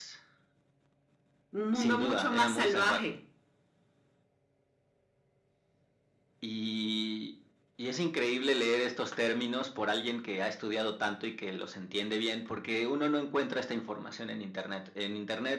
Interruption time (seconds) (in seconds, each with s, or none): 1.8 s